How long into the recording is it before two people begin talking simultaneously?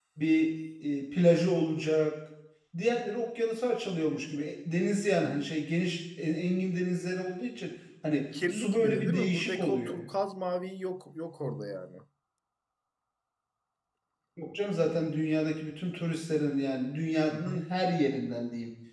8.5 s

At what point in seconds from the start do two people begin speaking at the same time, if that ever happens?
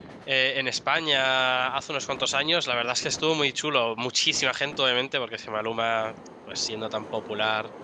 none

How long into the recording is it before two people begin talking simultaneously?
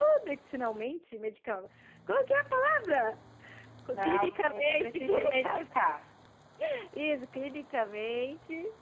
3.9 s

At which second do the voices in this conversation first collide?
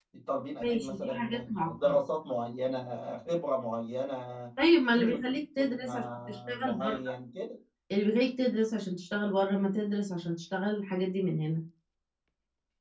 0.6 s

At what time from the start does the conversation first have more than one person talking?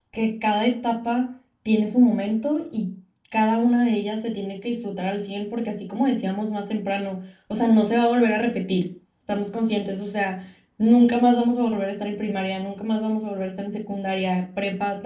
none

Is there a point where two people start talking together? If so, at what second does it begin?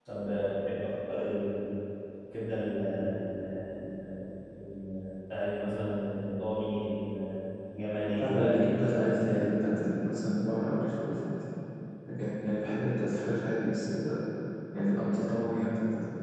8.2 s

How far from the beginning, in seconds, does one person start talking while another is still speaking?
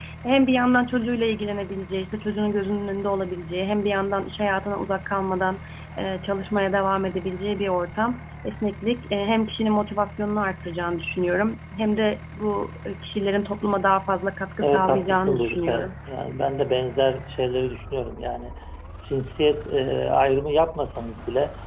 14.6 s

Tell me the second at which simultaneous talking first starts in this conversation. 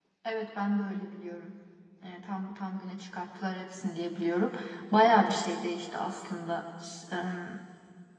none

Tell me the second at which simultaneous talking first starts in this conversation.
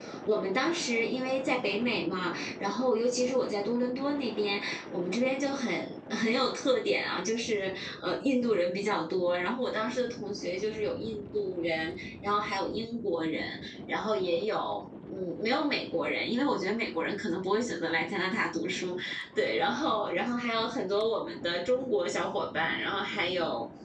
none

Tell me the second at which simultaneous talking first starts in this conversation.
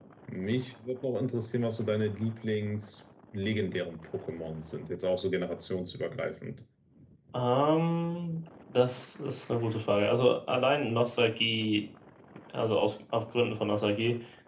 none

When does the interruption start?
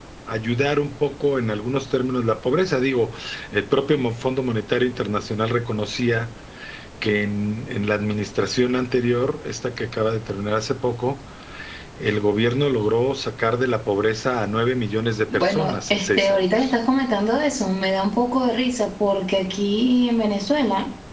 15.3 s

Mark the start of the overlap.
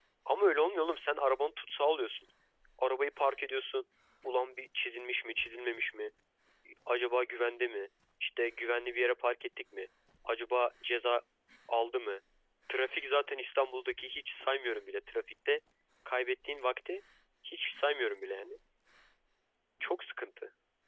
none

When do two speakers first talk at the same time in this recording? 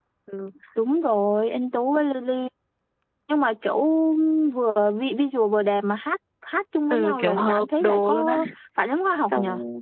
6.9 s

